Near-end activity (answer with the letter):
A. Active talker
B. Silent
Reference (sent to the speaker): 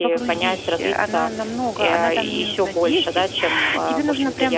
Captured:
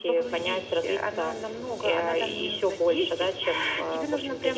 B